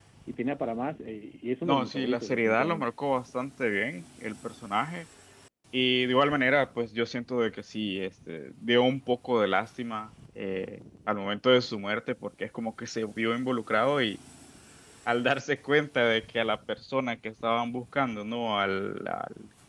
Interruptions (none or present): present